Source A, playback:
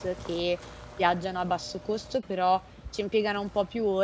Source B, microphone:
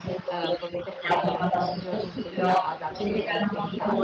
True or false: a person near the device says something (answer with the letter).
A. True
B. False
A